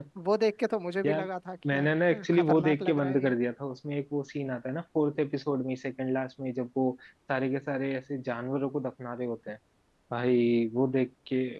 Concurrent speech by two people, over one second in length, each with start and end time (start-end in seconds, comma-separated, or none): 1.7-3.4